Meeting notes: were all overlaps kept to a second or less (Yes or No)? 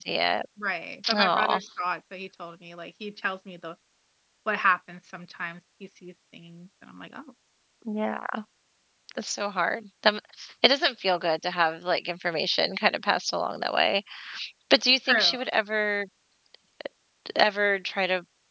Yes